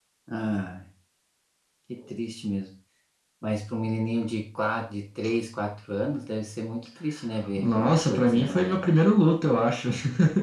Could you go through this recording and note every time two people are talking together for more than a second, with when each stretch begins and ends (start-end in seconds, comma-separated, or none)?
7.6-8.8